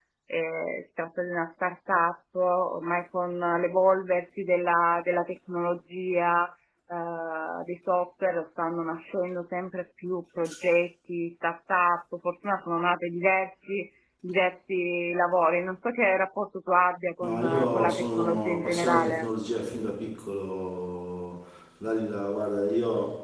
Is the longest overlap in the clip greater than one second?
Yes, from 17.2 s

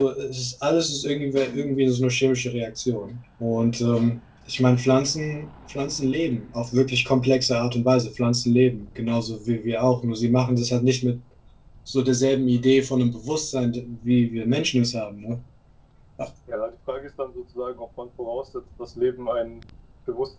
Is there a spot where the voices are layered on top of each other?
No

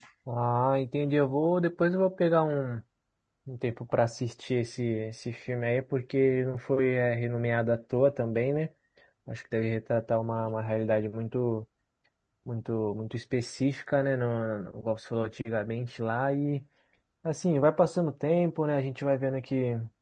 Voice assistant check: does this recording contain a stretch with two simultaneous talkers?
No

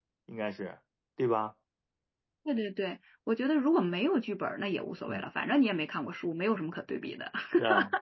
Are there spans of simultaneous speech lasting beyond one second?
No

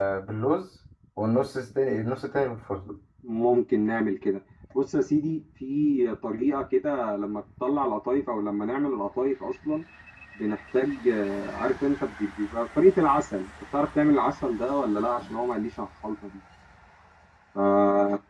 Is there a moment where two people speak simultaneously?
No

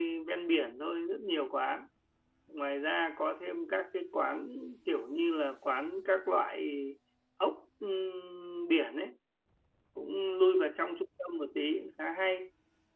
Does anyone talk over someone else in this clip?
No

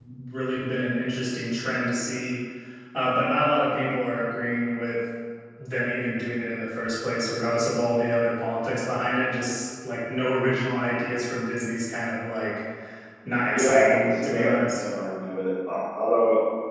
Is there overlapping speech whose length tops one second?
Yes, from 13.5 s

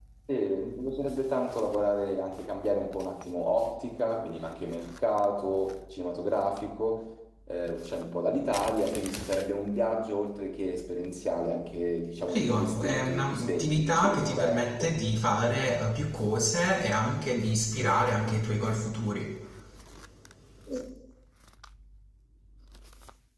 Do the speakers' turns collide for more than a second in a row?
Yes, from 12.3 s

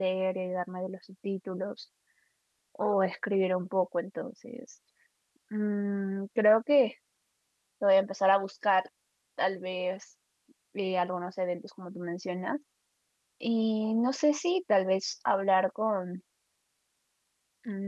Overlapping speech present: No

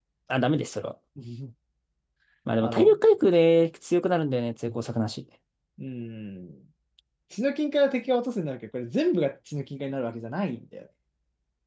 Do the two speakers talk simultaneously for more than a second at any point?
No

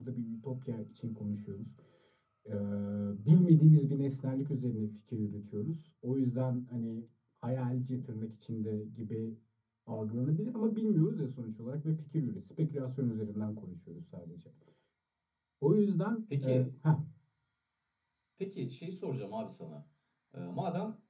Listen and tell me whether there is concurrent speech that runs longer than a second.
No

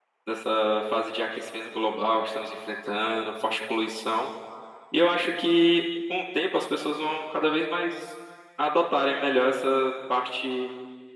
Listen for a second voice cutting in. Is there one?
No

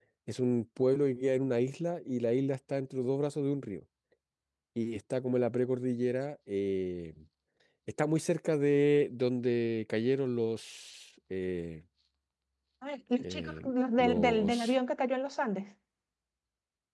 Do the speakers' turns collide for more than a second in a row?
Yes, from 13.2 s

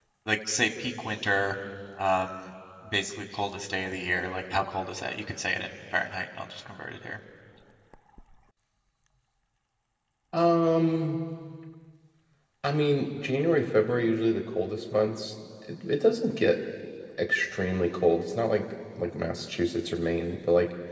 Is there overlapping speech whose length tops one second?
No

